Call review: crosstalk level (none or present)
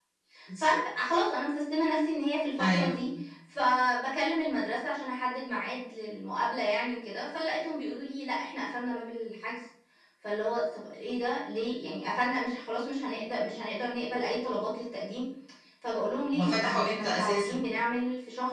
present